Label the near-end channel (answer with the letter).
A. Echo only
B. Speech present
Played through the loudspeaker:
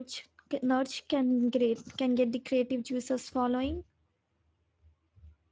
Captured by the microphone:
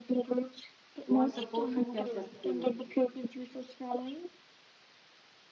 B